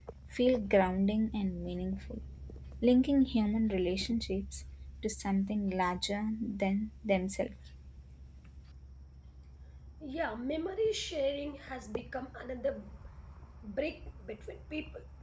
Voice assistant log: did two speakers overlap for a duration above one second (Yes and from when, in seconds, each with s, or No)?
No